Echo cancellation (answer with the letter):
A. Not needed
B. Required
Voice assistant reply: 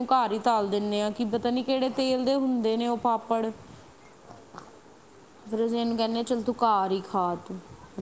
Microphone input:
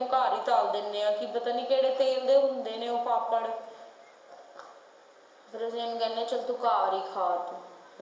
B